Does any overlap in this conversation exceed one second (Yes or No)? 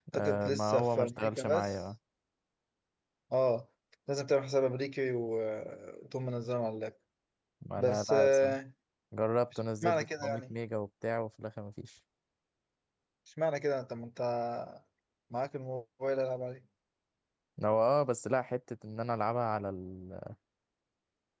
Yes